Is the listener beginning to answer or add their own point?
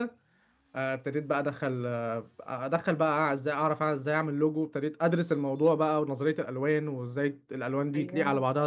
No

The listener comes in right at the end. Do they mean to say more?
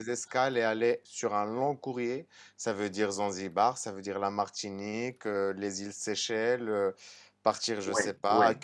Yes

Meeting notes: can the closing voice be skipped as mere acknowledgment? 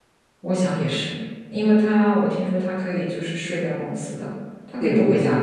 No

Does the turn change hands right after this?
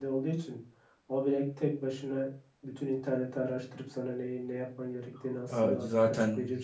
Yes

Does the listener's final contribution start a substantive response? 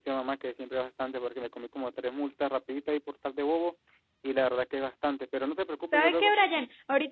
Yes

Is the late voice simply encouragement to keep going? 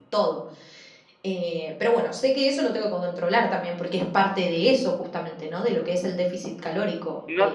No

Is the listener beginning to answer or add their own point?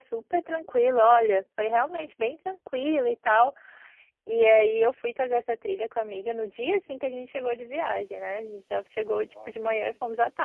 No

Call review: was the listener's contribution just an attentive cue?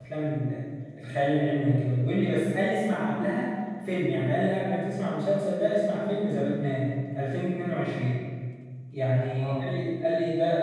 Yes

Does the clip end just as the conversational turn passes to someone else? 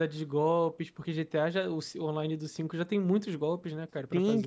Yes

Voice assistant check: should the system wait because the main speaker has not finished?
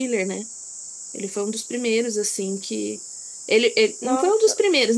Yes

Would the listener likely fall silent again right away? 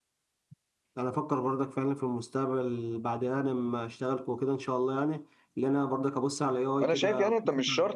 No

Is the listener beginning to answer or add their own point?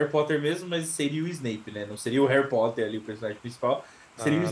No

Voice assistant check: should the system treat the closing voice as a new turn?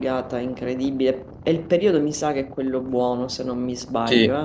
Yes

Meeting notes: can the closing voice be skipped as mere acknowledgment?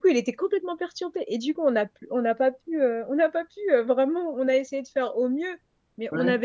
Yes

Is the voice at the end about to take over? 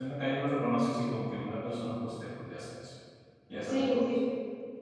Yes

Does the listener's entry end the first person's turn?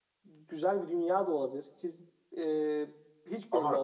Yes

